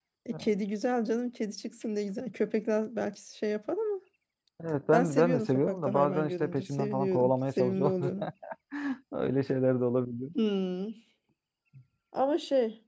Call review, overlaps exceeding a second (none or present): present